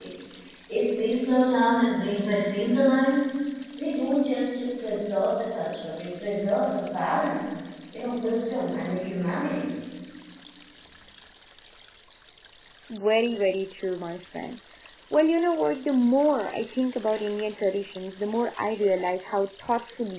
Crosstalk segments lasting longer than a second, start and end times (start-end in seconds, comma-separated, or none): none